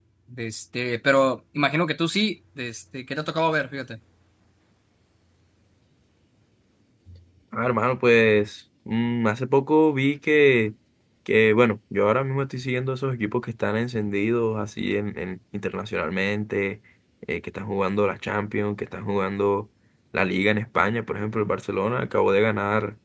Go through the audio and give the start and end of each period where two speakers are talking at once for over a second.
none

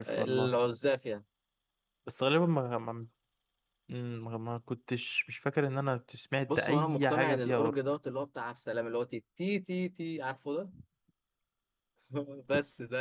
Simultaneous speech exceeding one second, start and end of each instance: 6.5-7.8

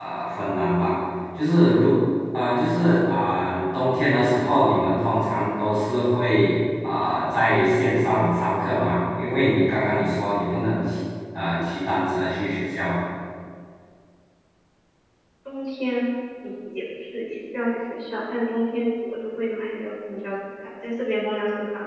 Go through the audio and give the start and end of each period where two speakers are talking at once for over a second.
none

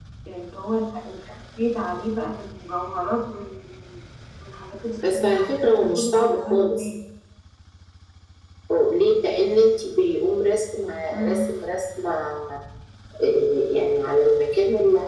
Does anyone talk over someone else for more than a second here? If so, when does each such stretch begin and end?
5.1-6.9

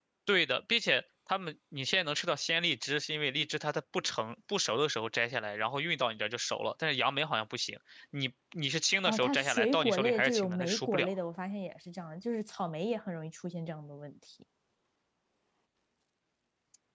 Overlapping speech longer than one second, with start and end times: 9.1-11.1

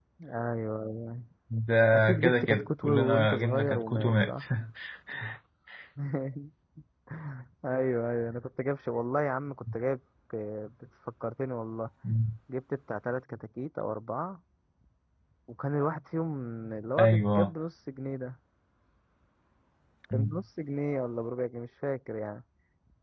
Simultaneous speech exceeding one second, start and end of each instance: 2.2-4.4

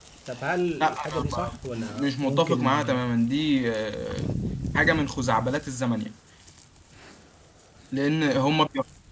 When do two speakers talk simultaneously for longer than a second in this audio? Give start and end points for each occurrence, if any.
0.8-2.8

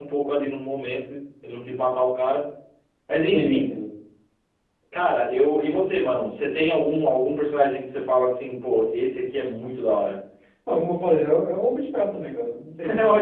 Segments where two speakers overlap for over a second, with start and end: none

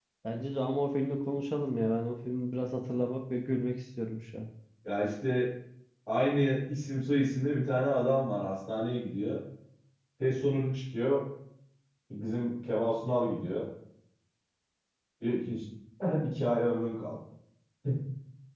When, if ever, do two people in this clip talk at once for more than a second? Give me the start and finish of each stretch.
none

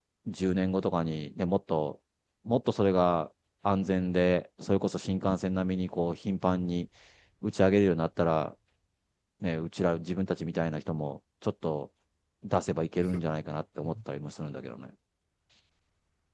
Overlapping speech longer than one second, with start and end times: none

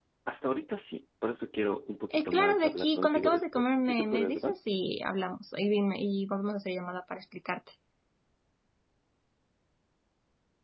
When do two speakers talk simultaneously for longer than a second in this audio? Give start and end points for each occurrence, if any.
2.1-4.5

